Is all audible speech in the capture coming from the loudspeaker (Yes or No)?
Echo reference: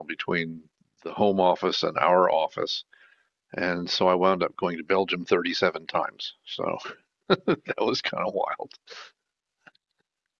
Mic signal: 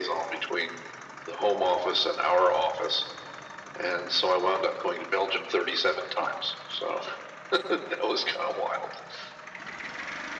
Yes